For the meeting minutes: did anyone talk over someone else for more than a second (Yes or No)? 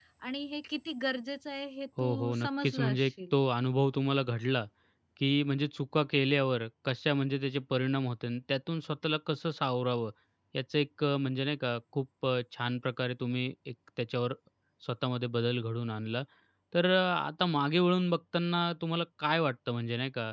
Yes